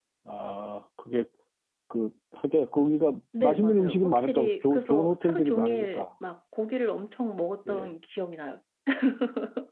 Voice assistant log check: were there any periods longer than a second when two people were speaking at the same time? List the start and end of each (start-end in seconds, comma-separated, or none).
3.4-6.0